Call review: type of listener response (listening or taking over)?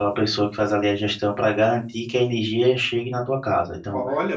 listening